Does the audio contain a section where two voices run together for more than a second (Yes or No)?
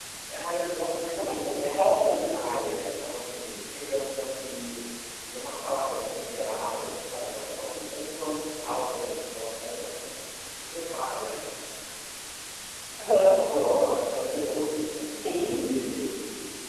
Yes